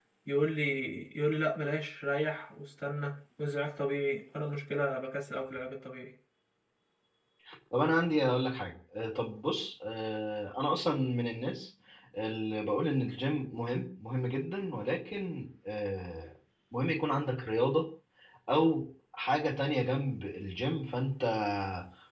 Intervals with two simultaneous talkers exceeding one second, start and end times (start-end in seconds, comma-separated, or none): none